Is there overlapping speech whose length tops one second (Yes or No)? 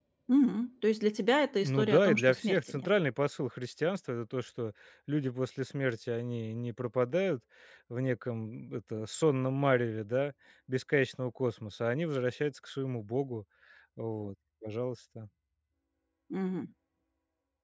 Yes